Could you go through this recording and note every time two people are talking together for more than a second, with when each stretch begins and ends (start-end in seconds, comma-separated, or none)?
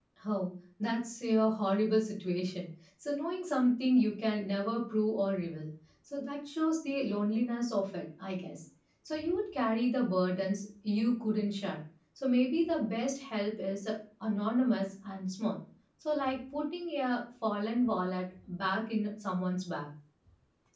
none